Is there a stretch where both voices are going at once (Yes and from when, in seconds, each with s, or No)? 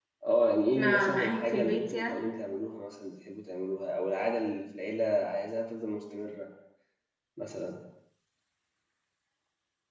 Yes, from 0.7 s